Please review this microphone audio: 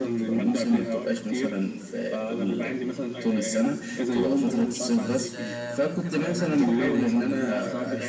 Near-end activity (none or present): present